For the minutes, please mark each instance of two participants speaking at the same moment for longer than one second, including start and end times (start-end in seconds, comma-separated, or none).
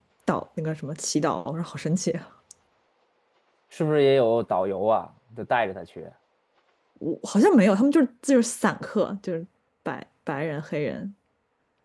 none